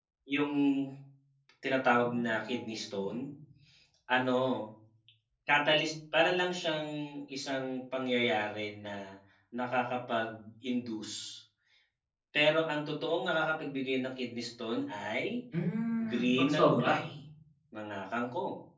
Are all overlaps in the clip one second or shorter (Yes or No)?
No